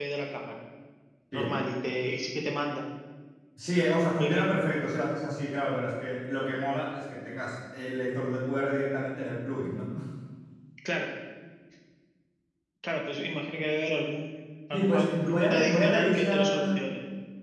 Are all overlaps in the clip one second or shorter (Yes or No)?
No